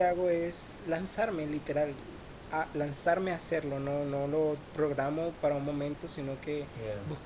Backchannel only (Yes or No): Yes